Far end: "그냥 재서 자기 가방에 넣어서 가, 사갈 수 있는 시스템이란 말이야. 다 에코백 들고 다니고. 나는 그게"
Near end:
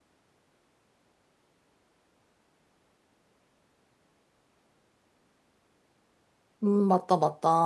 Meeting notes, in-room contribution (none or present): present